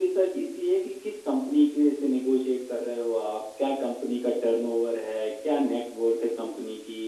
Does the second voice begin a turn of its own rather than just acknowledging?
No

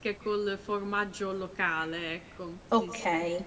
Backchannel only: No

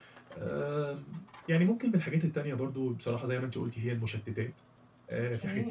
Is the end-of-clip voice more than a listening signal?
No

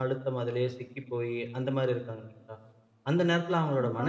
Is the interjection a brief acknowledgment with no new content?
Yes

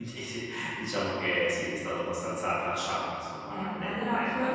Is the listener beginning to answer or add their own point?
Yes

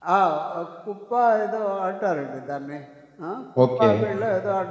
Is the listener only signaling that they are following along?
Yes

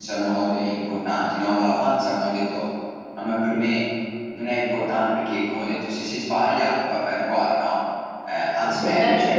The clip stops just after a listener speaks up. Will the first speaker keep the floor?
Yes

